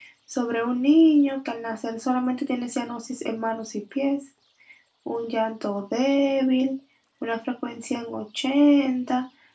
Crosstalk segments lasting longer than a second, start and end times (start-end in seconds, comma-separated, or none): none